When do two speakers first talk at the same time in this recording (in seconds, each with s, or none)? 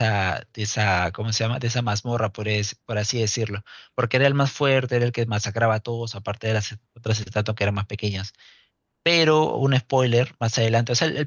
none